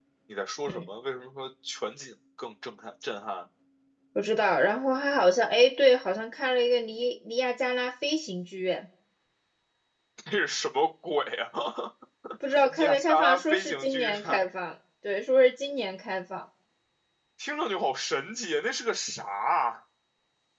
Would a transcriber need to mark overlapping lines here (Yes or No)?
Yes